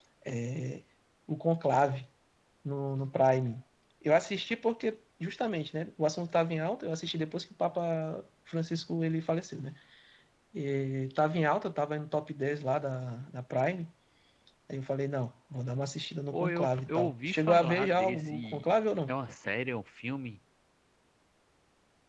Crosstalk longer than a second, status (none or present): present